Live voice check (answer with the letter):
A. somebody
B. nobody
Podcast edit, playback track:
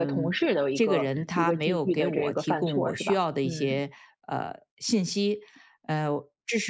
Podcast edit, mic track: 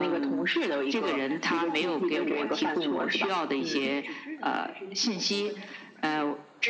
A